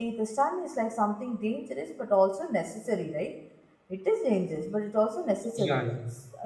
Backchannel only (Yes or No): Yes